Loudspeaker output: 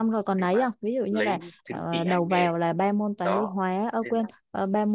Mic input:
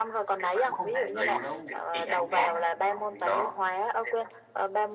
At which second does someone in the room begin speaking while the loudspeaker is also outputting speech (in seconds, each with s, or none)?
0.6 s